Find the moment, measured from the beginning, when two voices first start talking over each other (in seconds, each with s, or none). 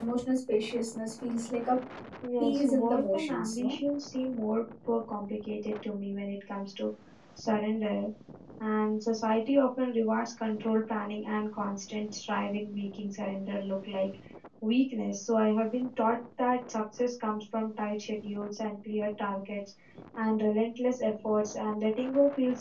2.4 s